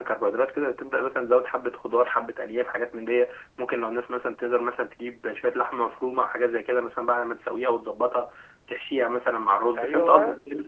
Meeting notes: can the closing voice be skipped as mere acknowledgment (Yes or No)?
Yes